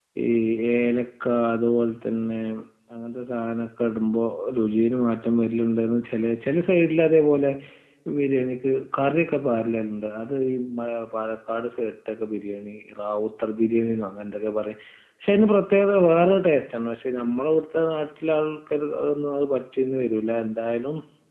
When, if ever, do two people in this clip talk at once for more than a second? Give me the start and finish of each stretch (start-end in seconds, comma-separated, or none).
none